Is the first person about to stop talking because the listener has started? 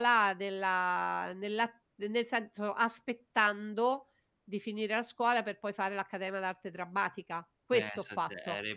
Yes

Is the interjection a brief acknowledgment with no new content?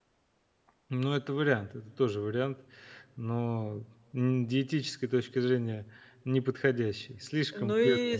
No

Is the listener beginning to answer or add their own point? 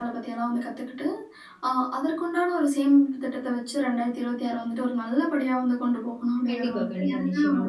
Yes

